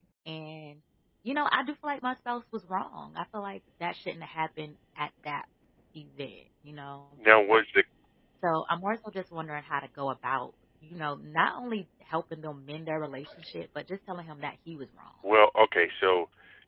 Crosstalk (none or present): none